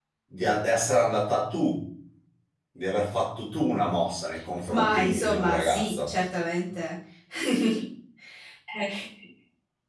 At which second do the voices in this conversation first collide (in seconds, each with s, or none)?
4.7 s